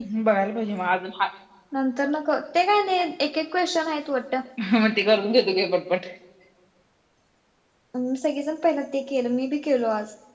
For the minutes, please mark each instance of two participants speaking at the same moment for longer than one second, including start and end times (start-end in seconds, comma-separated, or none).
none